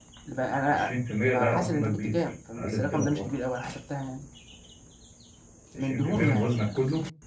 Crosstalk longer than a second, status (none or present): present